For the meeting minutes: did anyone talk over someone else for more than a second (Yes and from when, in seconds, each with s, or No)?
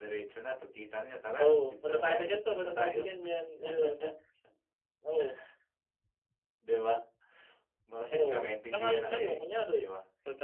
Yes, from 1.4 s